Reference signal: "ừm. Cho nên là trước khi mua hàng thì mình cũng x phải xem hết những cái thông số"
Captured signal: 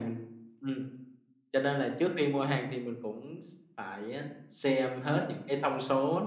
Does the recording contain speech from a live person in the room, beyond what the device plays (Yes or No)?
No